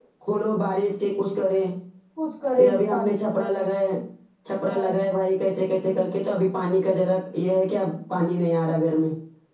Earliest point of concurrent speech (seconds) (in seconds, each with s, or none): 2.6 s